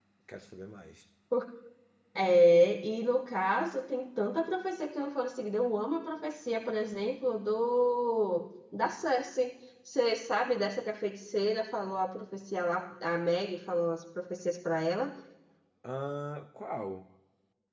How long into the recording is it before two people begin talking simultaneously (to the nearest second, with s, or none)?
none